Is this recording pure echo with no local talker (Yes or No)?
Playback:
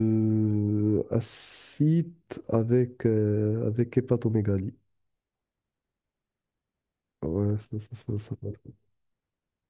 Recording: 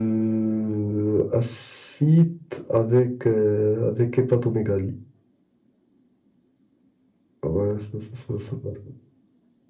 Yes